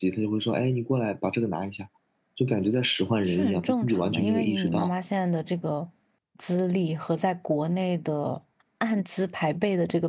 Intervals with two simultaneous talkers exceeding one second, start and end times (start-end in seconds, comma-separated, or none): 3.2-4.9